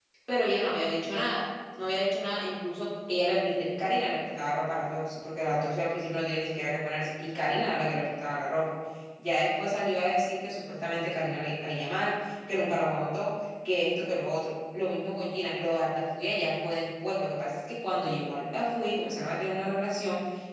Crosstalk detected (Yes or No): No